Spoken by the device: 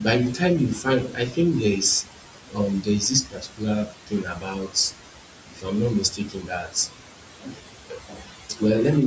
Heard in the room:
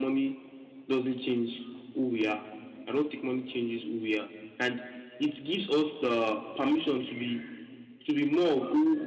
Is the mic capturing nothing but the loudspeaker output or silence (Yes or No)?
No